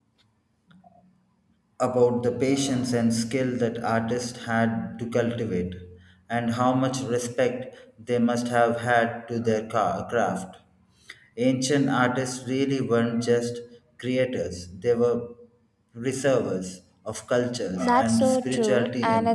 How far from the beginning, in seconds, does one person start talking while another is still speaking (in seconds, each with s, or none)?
17.8 s